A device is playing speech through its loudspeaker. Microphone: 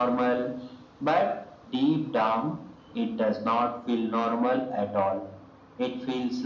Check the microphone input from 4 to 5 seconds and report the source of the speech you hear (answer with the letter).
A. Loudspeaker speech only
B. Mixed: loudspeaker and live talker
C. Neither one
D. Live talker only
A